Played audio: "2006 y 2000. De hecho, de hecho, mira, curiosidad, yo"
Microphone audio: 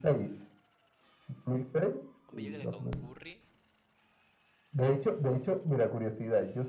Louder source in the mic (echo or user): echo